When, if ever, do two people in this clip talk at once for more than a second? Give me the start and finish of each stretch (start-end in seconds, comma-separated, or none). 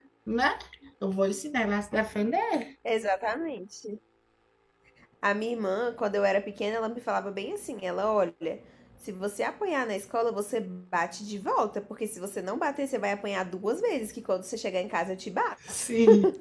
none